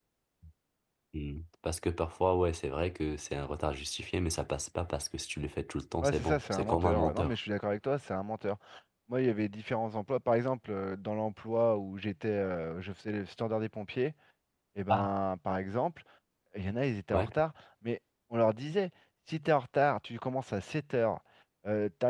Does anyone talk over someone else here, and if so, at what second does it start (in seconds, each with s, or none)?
6.0 s